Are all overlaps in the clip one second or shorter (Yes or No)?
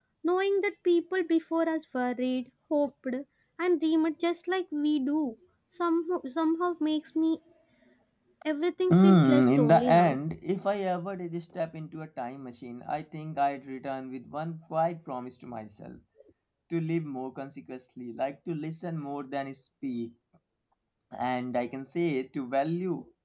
No